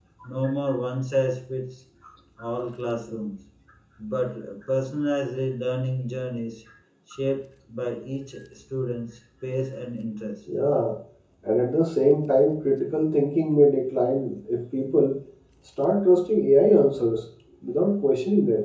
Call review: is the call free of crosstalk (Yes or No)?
Yes